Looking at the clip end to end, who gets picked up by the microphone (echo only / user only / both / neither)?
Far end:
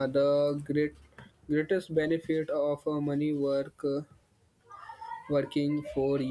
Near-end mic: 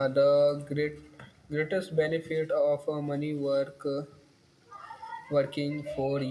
echo only